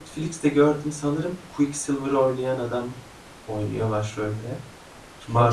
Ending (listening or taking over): taking over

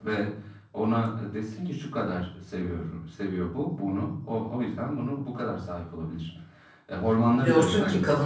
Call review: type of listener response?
taking over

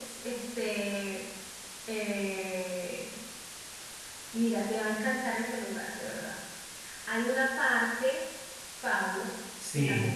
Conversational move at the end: listening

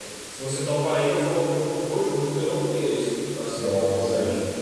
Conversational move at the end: taking over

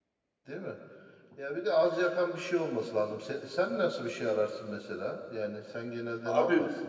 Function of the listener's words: taking over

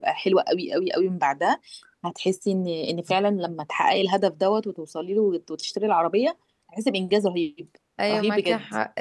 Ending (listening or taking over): taking over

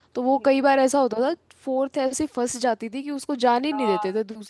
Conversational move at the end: taking over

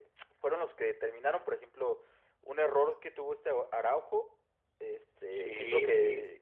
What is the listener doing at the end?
listening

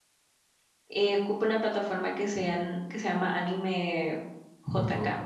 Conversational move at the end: taking over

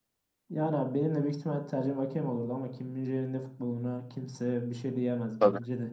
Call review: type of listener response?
taking over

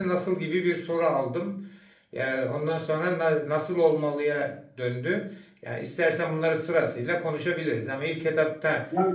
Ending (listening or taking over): taking over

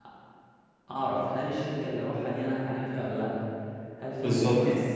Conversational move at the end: listening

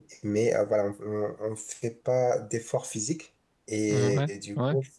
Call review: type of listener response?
listening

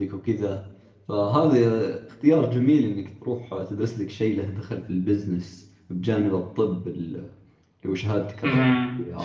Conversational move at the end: taking over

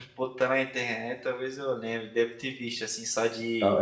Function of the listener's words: taking over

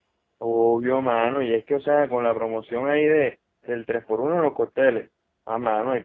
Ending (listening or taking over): listening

